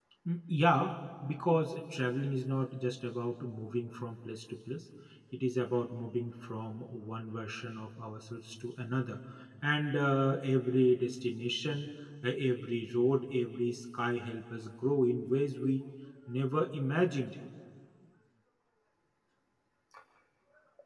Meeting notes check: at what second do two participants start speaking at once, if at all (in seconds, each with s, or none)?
none